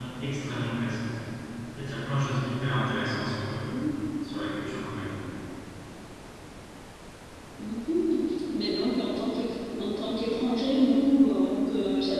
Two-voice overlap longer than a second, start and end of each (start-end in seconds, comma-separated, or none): none